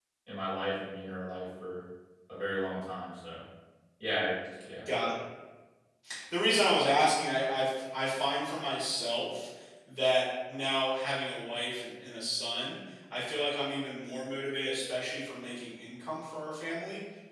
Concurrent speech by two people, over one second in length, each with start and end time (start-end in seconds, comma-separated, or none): none